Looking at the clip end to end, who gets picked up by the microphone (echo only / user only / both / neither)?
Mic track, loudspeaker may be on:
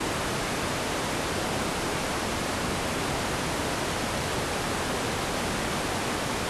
neither